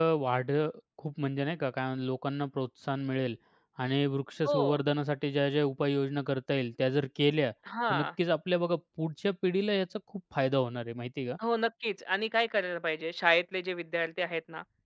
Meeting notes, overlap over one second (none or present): none